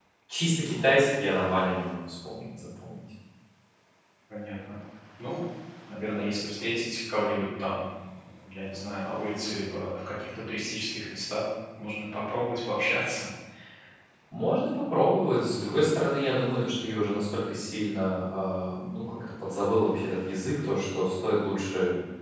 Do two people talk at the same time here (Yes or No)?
No